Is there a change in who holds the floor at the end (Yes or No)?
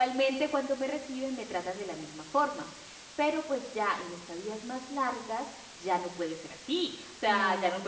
No